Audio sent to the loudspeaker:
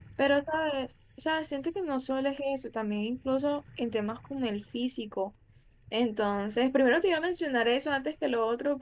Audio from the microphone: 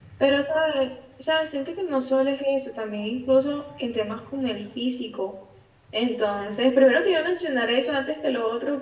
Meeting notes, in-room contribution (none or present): none